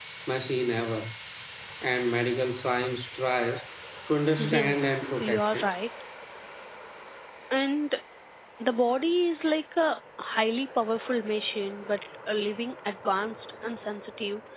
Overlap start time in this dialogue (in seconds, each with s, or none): 4.4 s